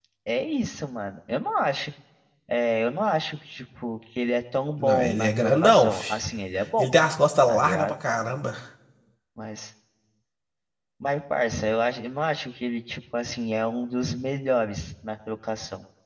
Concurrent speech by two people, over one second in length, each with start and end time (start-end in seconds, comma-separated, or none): 4.8-6.2